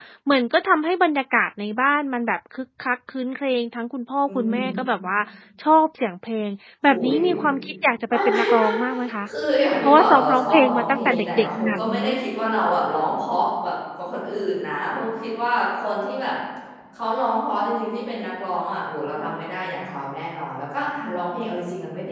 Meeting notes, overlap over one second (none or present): present